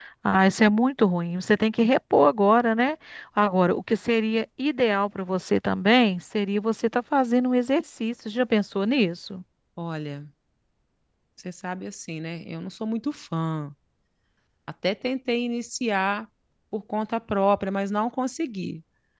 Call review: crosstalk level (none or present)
none